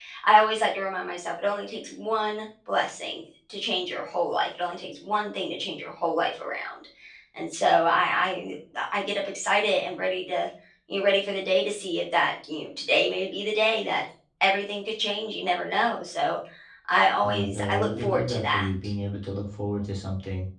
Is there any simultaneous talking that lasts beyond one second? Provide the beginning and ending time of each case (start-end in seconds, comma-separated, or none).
17.2-18.7